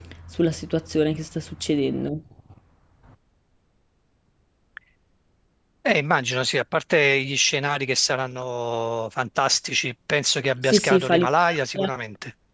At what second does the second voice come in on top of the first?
11 s

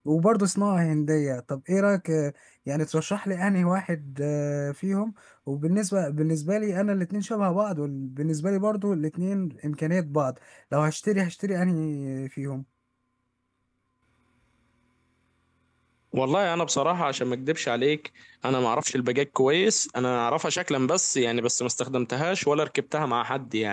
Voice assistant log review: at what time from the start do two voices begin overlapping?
none

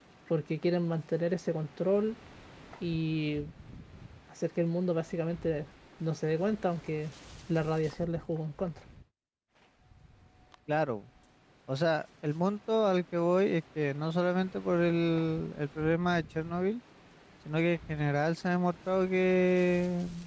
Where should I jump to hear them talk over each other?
none

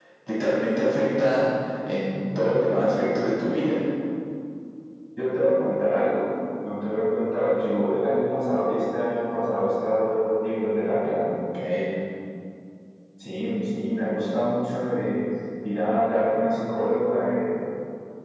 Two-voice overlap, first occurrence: none

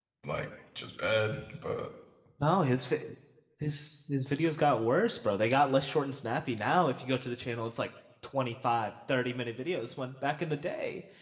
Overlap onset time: none

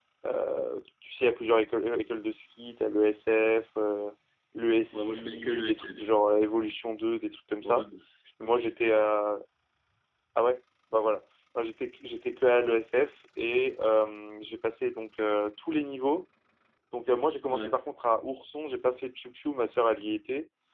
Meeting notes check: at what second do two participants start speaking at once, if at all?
5 s

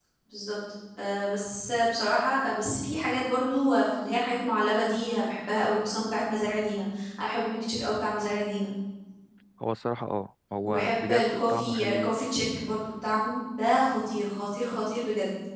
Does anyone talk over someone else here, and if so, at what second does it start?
11 s

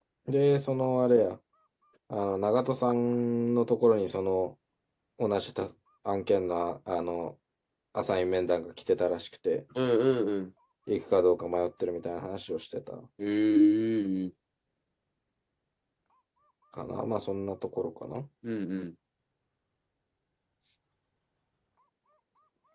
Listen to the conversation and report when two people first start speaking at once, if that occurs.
none

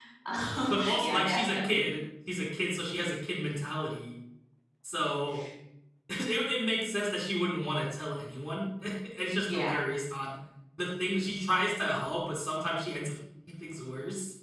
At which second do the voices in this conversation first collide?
1 s

